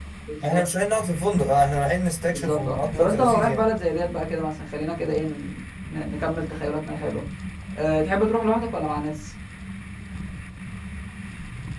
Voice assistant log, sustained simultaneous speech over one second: present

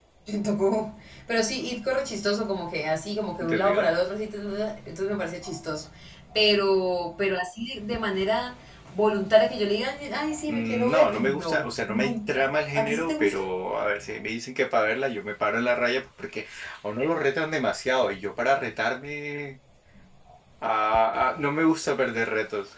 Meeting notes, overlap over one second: present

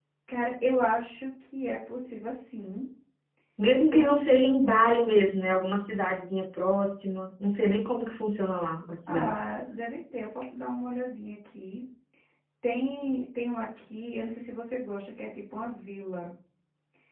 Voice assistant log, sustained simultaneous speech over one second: none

